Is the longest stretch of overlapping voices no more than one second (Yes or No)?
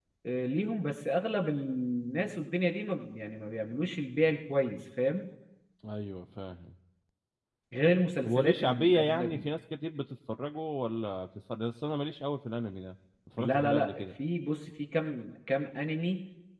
No